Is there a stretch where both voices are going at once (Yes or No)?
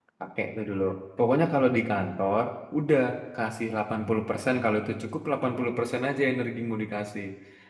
No